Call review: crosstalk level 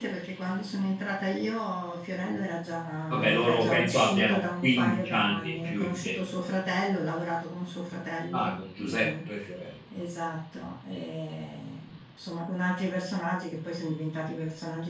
present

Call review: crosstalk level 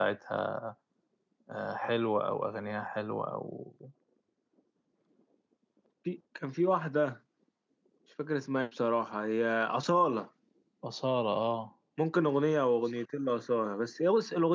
none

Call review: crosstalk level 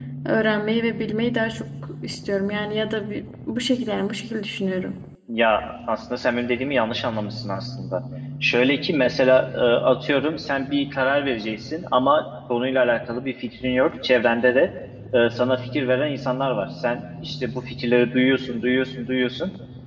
none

